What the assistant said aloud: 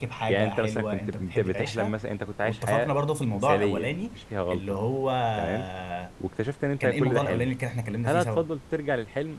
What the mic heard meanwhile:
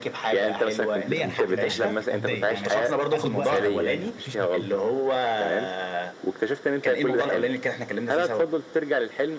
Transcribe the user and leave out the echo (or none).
ليا الحق ان انا اتضايق فيه اتضايق يعني ماشي أست- اخد وقتي في المضايقه مفيش مشكلة.